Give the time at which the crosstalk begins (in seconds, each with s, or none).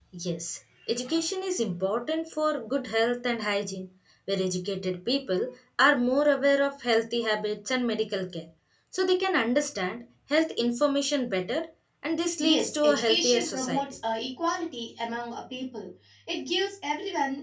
12.4 s